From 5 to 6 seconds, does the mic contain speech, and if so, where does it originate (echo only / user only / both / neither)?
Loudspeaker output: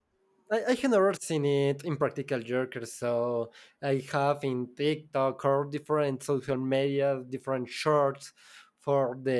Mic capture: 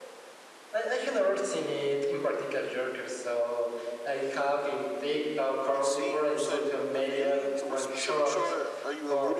both